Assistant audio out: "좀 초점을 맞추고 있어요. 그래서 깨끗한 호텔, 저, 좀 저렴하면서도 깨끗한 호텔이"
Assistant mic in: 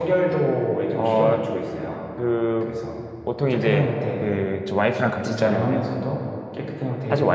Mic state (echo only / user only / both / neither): both